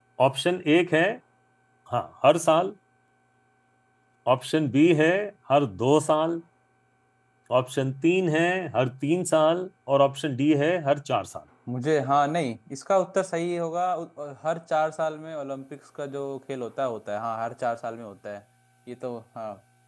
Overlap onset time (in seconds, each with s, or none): none